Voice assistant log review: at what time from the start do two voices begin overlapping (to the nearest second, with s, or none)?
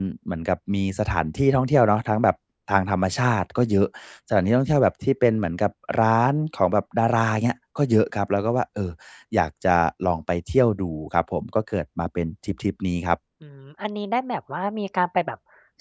none